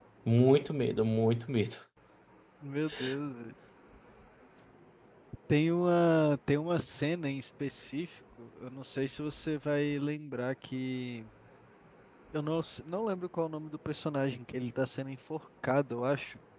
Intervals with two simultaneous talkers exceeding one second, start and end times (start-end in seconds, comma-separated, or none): none